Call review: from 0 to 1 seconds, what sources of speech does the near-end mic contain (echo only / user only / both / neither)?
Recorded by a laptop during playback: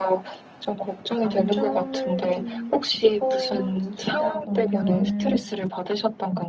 echo only